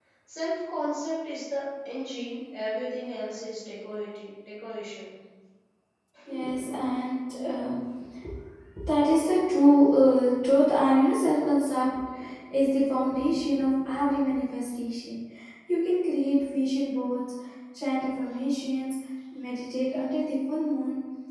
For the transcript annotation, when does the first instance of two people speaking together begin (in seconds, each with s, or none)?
none